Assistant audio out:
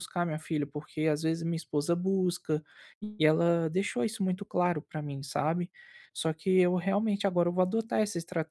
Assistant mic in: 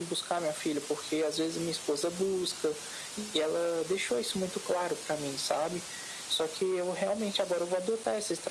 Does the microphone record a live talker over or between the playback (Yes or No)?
No